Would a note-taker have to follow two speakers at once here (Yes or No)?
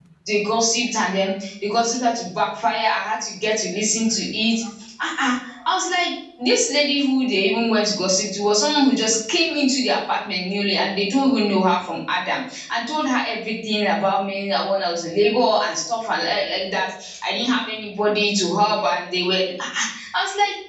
No